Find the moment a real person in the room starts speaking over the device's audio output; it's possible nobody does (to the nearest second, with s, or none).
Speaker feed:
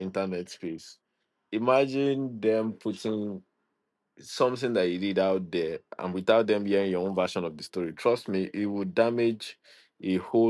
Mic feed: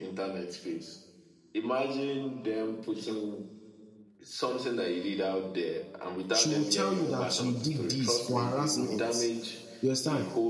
6 s